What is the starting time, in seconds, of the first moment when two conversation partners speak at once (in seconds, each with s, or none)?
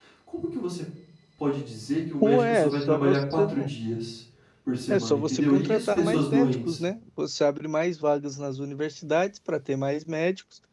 2.2 s